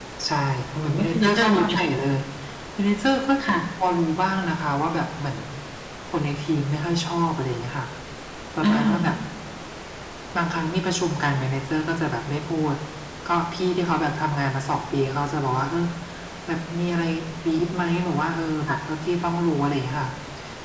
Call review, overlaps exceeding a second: present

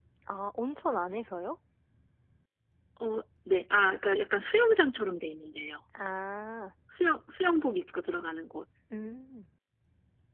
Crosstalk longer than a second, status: none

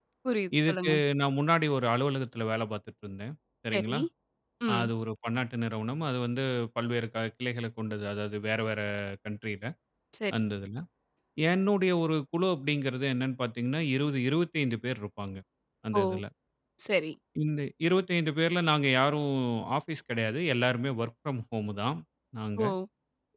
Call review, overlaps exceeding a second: none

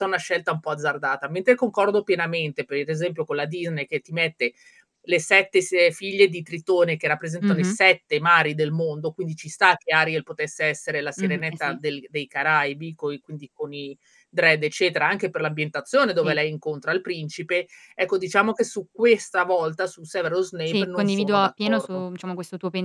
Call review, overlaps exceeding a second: present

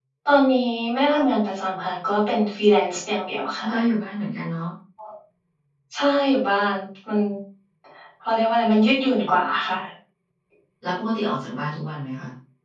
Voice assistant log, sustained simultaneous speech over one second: none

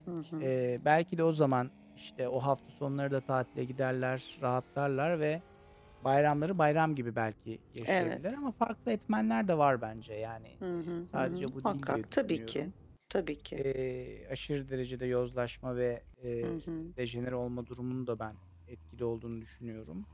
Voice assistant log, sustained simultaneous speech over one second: present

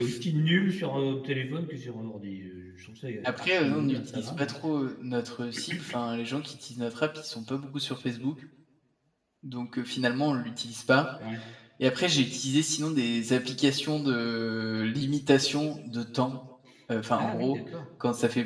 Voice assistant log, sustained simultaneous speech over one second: present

